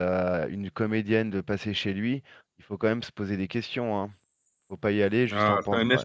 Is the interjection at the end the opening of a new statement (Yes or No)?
Yes